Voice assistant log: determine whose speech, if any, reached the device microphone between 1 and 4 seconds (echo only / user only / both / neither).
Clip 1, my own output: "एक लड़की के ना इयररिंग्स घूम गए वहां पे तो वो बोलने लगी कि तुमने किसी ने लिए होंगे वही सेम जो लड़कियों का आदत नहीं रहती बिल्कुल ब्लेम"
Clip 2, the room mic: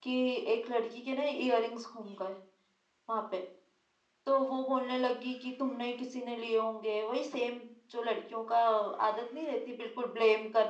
echo only